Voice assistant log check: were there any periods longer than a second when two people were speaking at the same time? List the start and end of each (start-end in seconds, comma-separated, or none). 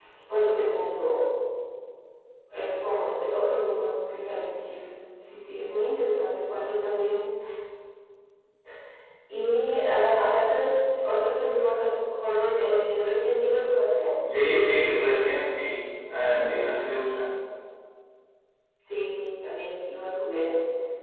none